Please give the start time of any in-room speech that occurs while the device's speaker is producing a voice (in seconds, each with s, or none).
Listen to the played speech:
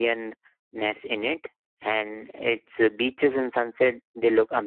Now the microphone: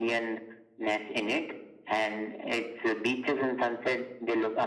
none